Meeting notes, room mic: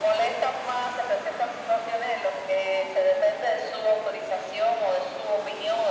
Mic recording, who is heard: echo only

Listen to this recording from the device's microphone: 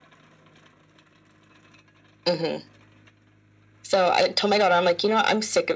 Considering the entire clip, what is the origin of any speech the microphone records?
echo only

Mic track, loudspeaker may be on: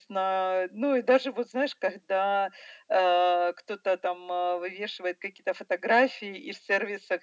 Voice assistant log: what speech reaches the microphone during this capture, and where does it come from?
echo only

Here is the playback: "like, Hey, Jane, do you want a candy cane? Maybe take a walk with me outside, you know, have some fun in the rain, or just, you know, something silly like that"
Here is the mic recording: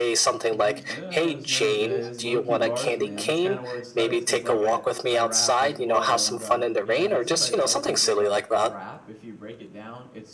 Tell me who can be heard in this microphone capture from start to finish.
both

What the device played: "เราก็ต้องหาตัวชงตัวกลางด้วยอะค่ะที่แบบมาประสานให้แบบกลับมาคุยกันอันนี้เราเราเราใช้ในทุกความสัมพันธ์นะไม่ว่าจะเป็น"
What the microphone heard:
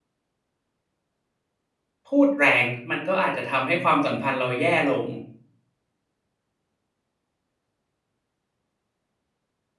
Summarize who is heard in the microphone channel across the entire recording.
user only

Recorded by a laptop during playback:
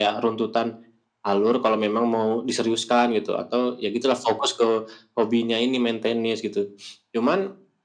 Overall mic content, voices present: echo only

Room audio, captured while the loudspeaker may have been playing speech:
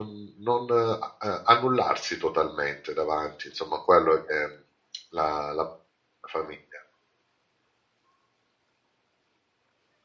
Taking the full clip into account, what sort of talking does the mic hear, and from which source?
user only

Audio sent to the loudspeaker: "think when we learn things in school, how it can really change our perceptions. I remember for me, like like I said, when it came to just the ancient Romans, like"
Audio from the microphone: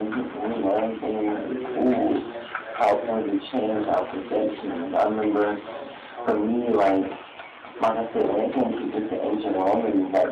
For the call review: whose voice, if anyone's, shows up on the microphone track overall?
both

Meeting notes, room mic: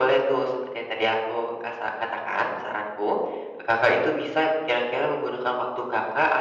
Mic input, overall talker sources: echo only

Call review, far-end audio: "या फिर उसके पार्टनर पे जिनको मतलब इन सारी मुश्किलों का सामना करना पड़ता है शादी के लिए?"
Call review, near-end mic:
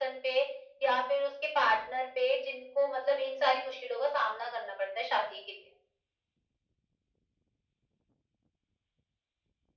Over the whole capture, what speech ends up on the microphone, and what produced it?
echo only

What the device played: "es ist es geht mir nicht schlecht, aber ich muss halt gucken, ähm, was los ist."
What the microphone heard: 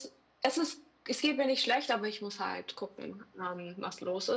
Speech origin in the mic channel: echo only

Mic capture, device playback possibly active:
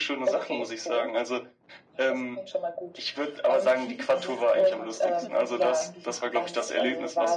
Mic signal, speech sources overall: both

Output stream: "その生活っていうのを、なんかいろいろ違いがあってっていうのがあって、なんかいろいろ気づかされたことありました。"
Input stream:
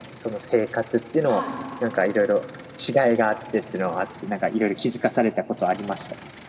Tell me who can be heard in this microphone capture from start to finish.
both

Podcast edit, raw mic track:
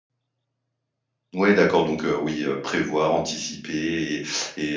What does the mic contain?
user only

